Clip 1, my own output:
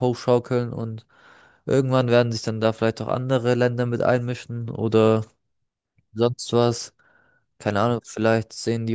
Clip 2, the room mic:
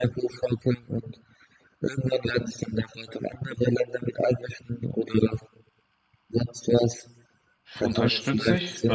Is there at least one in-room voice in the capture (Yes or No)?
Yes